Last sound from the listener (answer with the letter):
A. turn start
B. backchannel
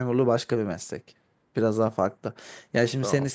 B